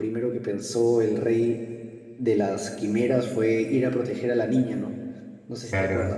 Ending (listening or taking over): taking over